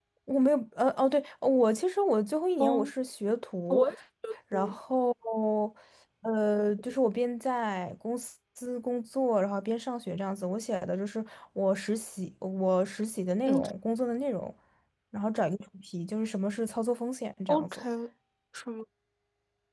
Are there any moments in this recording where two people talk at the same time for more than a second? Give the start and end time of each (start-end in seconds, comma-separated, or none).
none